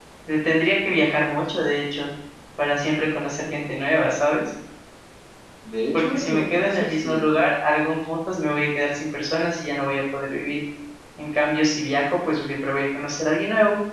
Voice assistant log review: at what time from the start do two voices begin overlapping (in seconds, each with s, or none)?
5.9 s